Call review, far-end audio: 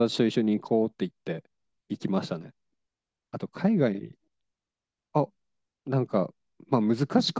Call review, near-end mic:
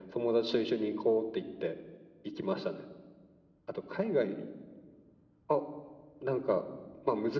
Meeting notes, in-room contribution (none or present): none